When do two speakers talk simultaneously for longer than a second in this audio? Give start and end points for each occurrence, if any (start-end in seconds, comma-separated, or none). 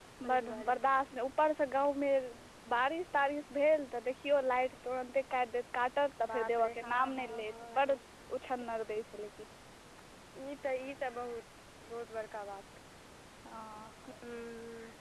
6.3-7.8